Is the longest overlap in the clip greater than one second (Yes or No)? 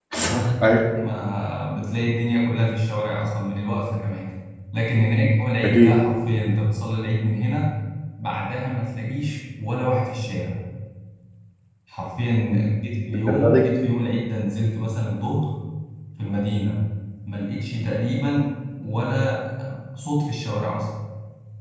No